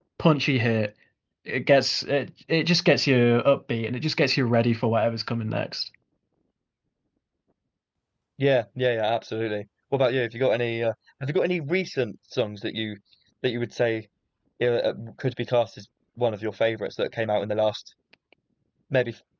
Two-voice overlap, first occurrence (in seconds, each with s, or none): none